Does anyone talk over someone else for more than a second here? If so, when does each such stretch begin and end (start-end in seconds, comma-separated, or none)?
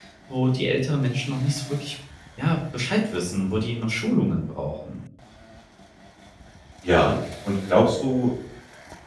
none